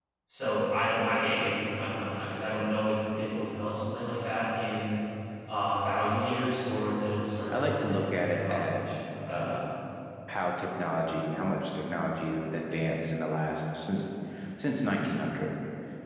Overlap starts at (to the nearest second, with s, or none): 8 s